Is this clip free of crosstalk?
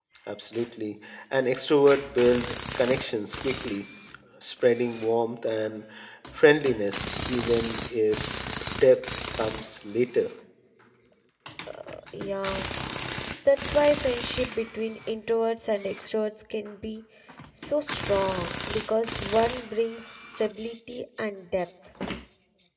Yes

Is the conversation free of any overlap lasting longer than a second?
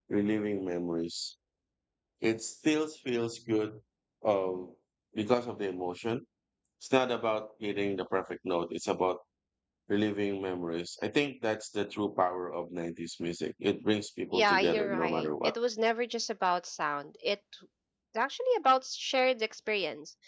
No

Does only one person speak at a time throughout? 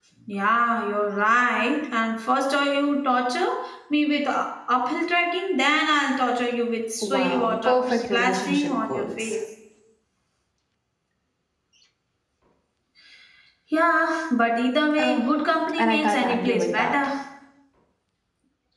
No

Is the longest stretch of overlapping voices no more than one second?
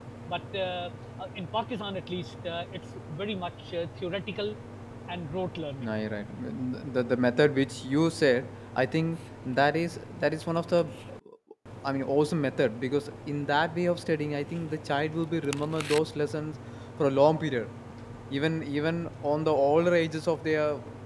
Yes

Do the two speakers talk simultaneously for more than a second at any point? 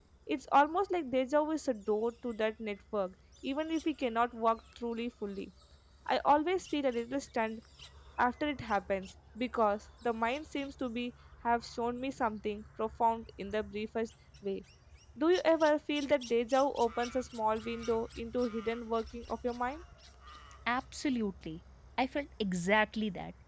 No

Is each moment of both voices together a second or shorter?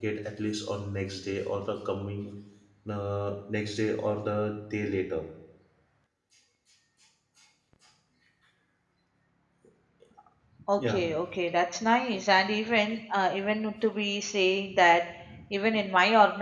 Yes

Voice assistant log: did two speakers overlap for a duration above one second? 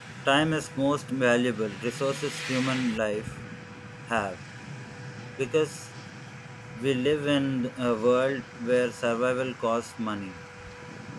No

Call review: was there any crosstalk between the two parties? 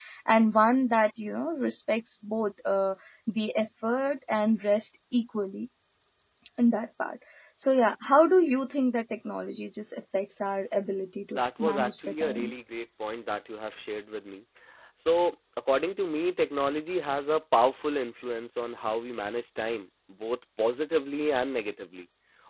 Yes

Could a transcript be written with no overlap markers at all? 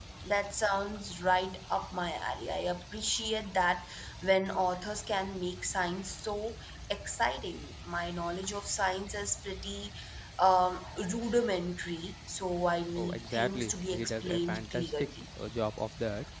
No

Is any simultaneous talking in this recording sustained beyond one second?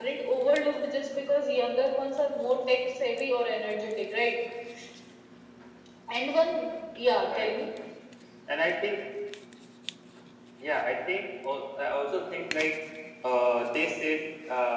No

